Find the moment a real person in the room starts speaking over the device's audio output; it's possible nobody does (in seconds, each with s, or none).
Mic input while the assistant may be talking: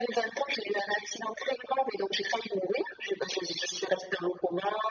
none